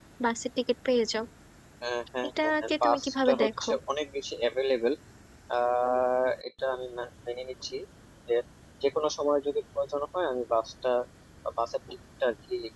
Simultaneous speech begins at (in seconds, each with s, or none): 2.4 s